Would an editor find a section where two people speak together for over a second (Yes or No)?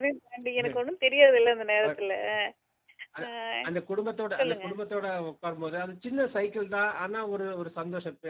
No